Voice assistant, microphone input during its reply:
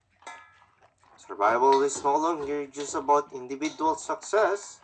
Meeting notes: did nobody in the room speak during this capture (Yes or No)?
Yes